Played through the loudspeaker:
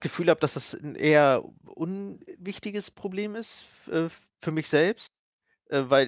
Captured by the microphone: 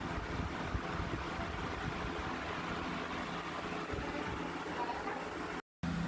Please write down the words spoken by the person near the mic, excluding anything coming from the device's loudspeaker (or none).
none